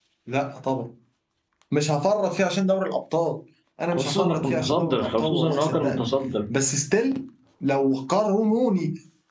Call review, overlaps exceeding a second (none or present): present